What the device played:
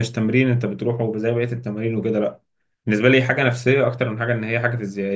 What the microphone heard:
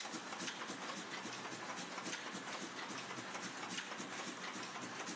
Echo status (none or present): none